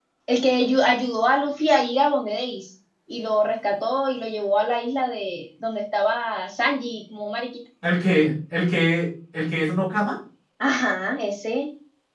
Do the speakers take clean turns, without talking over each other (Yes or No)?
Yes